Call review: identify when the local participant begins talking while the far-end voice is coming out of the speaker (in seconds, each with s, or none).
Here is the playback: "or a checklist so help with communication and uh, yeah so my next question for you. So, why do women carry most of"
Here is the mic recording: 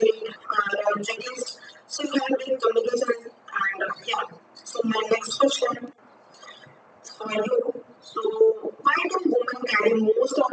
none